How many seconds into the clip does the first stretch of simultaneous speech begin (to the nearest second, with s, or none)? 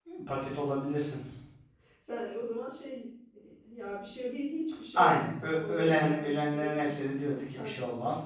5 s